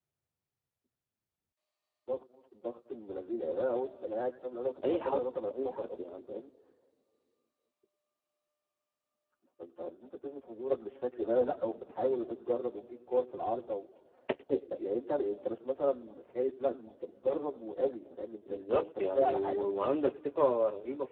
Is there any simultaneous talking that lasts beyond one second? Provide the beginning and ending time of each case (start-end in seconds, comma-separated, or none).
4.9-6.2, 18.5-19.9